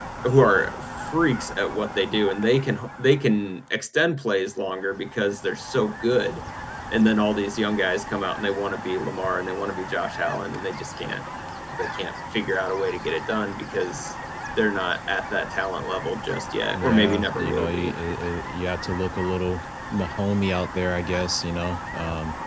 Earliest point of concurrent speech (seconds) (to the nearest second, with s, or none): 17 s